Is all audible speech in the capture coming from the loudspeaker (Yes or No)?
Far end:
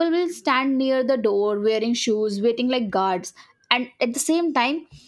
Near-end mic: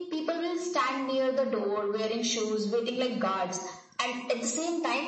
Yes